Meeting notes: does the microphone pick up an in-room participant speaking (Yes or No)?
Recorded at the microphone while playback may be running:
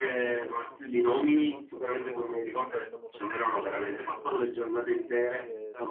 Yes